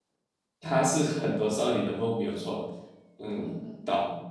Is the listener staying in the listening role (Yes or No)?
No